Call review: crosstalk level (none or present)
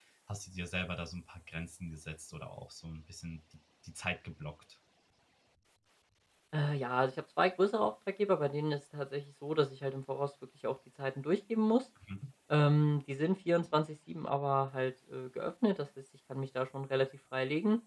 none